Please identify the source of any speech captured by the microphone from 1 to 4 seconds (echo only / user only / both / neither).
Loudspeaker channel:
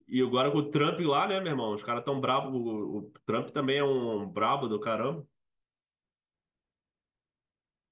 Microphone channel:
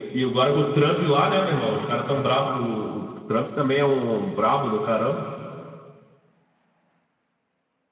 echo only